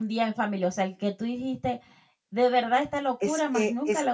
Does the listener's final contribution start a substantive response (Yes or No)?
Yes